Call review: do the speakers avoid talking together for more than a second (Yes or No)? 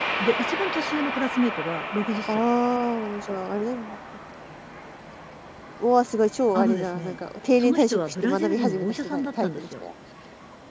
No